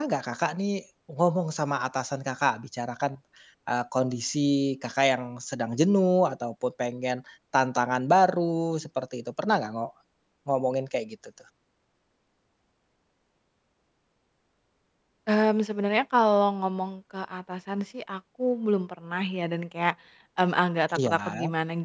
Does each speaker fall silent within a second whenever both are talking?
Yes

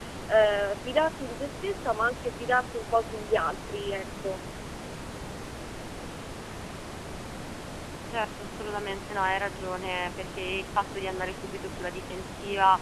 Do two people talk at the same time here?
No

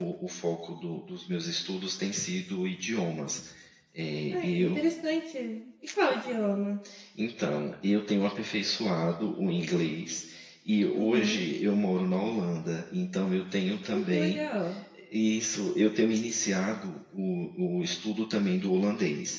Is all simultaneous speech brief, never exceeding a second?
Yes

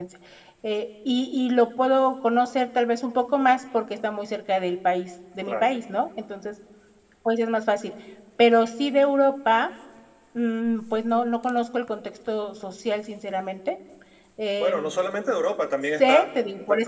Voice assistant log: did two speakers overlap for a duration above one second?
No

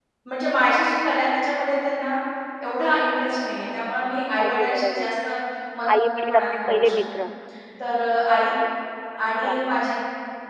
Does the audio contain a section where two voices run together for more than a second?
Yes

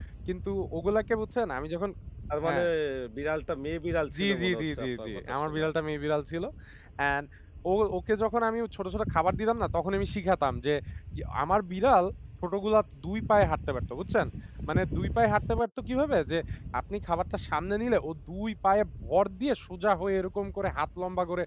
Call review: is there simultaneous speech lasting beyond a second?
Yes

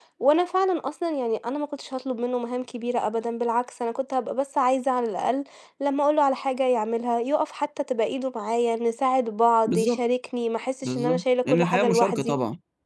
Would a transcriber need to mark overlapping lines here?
Yes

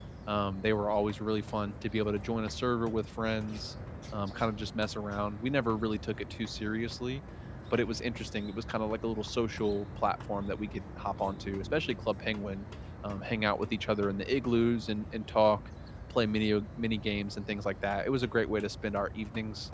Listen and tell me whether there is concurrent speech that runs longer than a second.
No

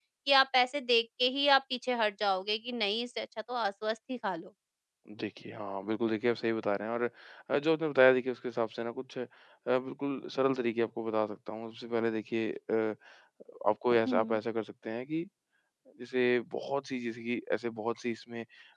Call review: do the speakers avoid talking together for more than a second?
Yes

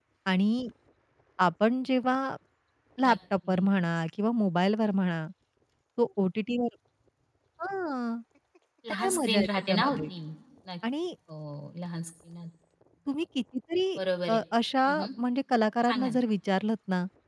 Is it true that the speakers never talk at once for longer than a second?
No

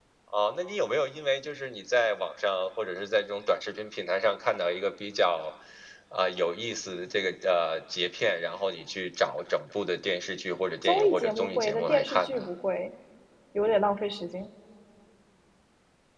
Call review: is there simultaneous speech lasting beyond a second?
Yes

